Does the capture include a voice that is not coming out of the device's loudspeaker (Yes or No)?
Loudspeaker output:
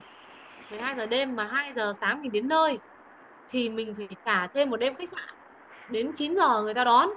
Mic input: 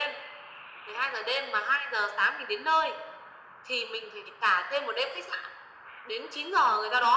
No